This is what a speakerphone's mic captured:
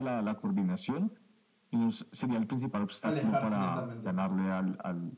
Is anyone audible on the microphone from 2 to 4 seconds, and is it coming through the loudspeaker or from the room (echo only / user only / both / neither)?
both